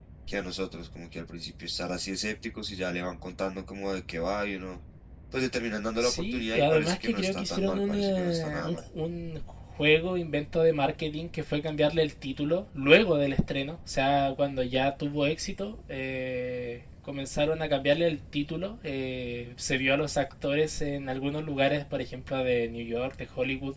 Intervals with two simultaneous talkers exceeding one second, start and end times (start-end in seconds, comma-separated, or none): 5.9-8.8